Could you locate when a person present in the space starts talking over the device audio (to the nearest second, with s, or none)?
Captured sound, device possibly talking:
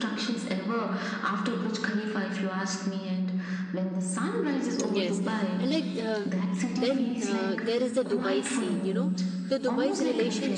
5 s